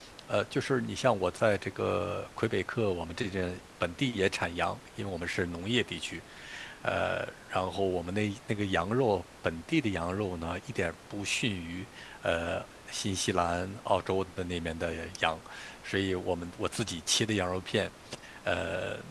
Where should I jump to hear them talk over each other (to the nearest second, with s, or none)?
none